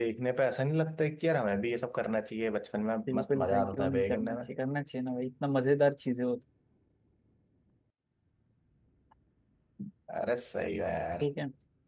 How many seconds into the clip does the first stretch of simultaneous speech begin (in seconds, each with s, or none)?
3.1 s